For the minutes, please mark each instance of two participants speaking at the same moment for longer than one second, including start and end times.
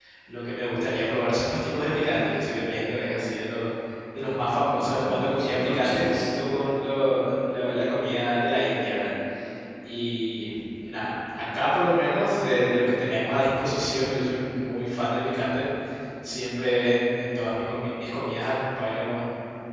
4.8-6.3

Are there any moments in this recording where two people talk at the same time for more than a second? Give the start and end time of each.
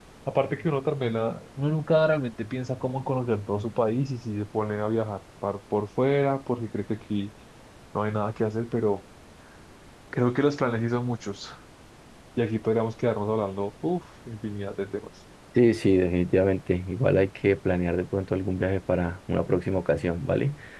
none

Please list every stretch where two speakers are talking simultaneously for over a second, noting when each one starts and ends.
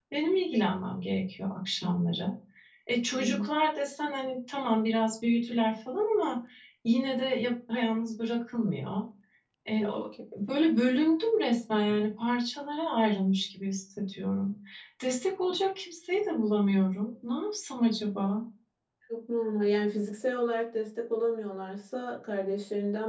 none

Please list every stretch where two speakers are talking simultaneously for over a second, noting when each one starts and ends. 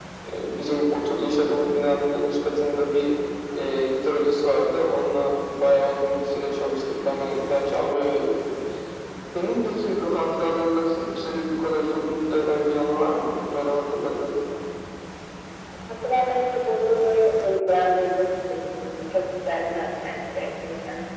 none

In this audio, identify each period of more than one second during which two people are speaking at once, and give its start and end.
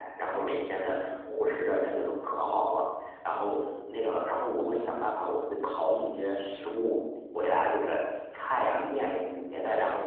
none

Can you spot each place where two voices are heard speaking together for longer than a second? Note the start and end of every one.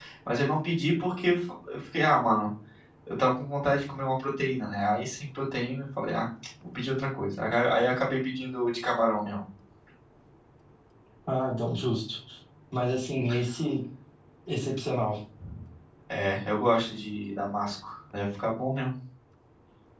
none

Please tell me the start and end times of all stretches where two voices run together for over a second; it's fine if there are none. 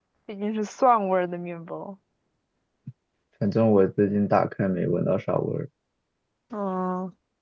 none

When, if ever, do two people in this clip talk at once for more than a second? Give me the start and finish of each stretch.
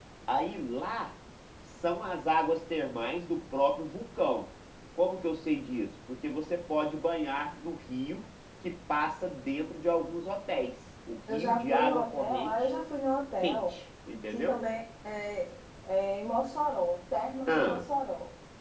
11.3-12.5

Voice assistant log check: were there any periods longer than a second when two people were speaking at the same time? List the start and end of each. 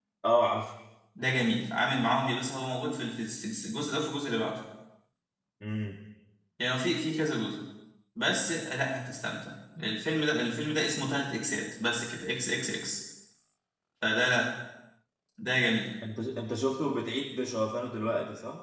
none

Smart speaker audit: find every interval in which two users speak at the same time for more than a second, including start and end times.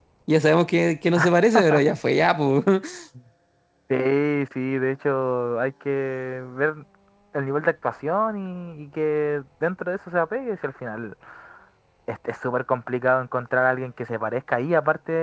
none

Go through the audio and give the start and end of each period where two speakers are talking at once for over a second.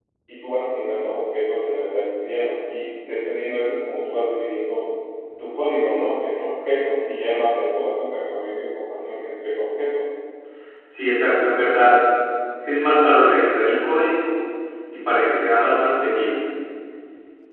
none

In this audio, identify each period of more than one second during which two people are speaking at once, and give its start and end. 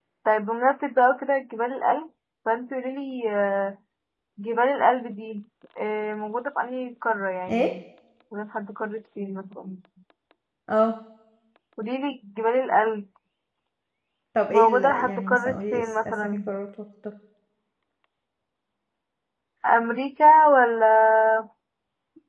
14.5-16.4

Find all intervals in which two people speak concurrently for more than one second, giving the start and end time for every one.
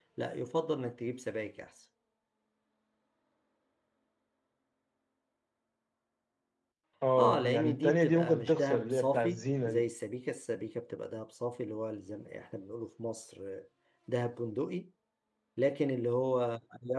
7.2-9.8

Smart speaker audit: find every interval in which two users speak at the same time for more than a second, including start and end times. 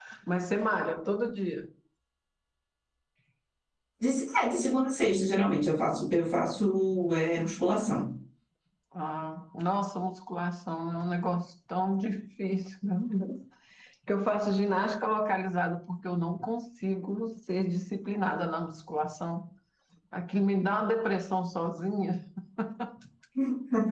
none

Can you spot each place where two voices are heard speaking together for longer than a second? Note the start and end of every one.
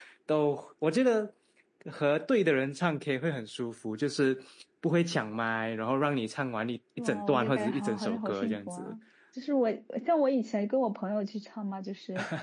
7.0-8.9

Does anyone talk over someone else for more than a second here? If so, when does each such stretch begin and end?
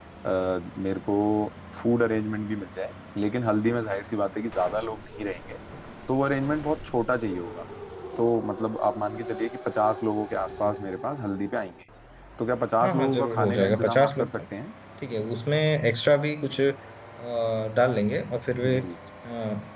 12.8-14.4

